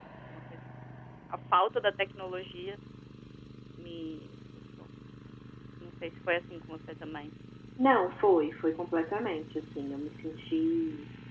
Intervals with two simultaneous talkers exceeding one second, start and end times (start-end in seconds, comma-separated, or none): none